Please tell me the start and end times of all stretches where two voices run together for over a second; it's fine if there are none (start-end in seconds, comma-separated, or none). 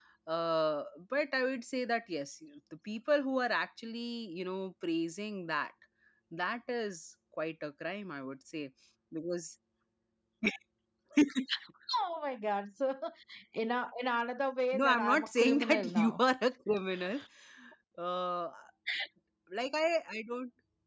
14.7-16.2